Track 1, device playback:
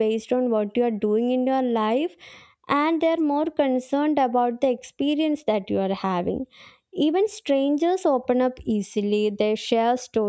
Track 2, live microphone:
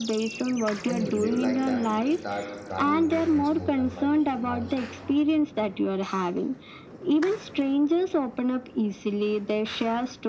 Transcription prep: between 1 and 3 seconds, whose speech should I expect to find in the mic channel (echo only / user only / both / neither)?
both